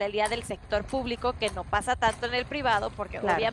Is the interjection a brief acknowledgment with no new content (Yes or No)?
Yes